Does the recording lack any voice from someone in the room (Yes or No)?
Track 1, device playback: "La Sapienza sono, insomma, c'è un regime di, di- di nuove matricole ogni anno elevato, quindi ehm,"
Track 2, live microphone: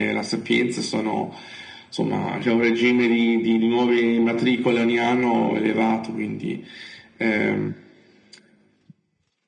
Yes